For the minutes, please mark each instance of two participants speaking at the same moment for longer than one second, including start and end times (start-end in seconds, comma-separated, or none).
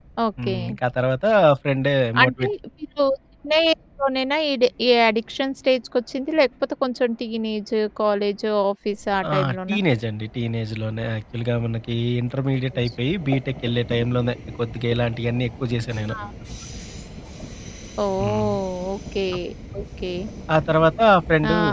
none